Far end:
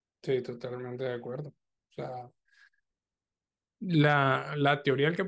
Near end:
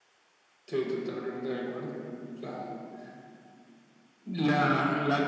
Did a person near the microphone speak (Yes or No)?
No